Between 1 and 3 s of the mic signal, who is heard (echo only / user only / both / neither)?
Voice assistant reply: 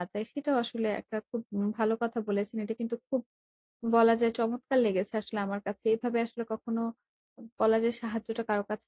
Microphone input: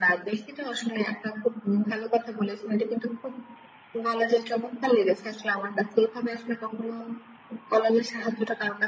echo only